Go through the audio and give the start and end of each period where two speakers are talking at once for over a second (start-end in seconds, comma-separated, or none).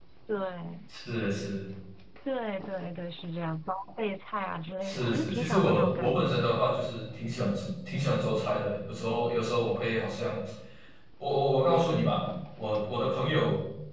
4.8-6.5